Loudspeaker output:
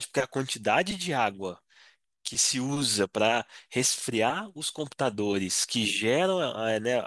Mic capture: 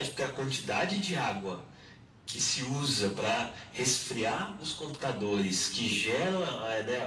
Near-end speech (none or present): none